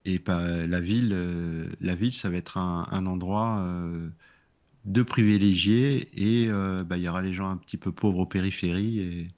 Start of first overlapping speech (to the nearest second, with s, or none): none